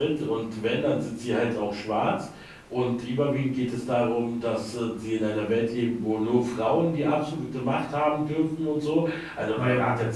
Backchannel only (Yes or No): Yes